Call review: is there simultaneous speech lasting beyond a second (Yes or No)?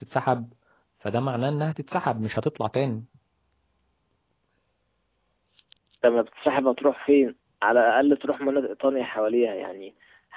No